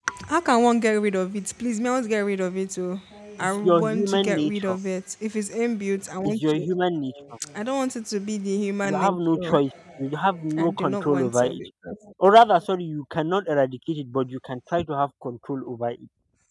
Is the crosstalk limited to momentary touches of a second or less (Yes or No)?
No